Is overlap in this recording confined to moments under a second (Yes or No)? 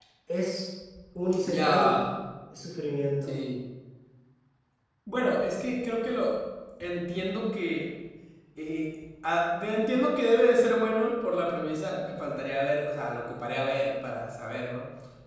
Yes